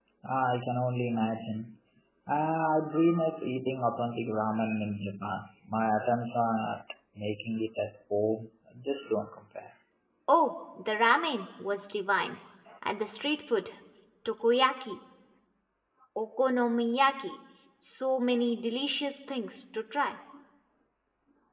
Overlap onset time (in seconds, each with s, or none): none